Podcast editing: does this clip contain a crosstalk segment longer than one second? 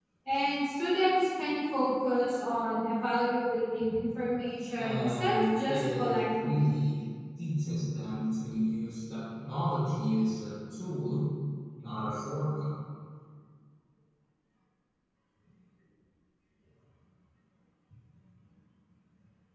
Yes, from 4.8 s

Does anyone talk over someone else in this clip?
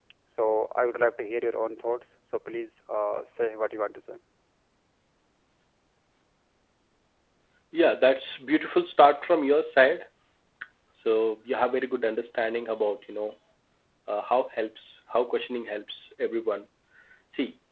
No

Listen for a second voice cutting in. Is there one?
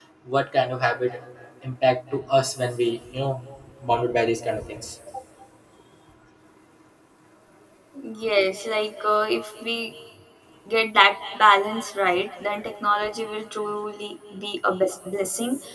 No

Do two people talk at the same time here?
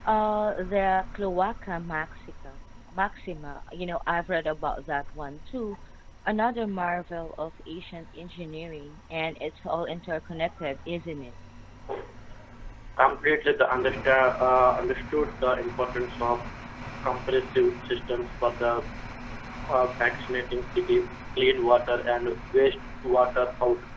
No

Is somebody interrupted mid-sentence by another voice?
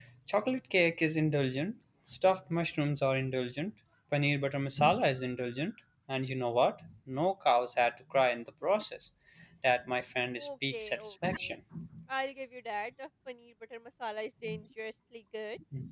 Yes, from 10.4 s

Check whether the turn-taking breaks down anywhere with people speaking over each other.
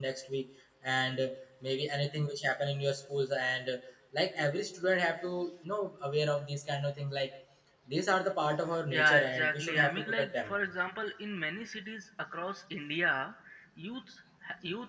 Yes, from 8.9 s

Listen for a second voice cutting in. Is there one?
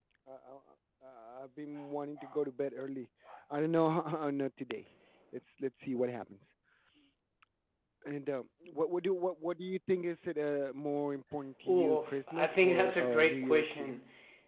Yes, from 11.7 s

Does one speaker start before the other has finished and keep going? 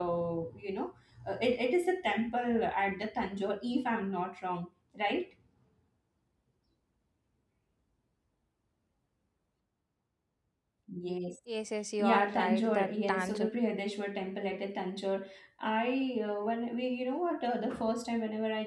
Yes, from 12.0 s

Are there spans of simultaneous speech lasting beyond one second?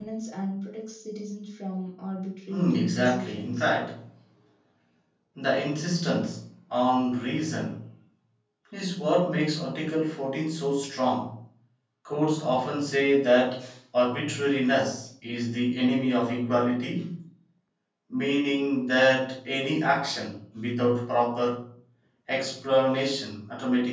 Yes, from 2.5 s

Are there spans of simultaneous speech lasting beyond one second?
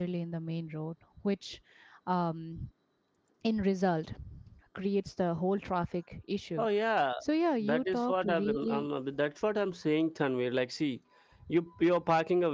Yes, from 7.6 s

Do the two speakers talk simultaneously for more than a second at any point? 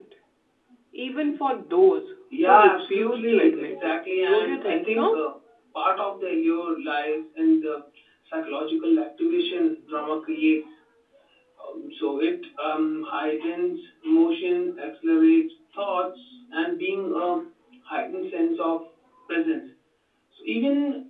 Yes, from 2.3 s

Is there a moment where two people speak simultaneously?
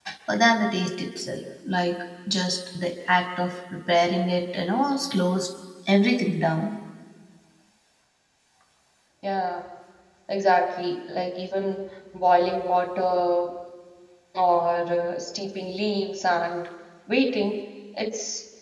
No

